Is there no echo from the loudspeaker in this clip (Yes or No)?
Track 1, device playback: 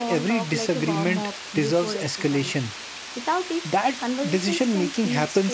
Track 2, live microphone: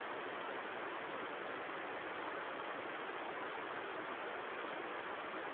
Yes